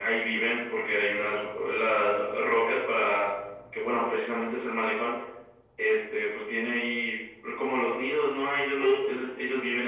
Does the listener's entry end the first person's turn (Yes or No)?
No